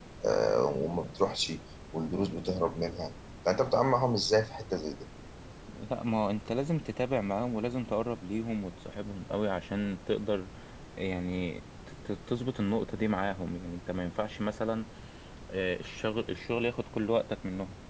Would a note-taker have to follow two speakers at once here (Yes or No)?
No